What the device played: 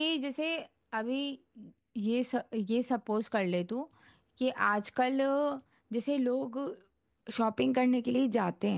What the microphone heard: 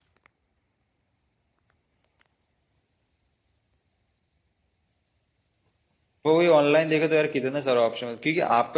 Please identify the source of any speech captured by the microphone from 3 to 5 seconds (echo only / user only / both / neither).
neither